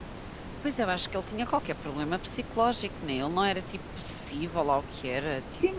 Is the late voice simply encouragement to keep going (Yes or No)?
No